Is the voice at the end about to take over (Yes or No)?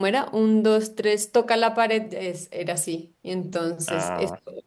No